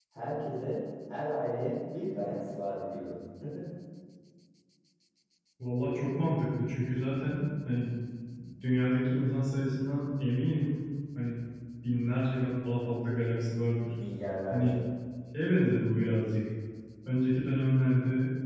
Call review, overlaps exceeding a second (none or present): none